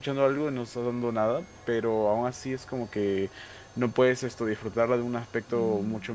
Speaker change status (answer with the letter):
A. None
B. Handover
A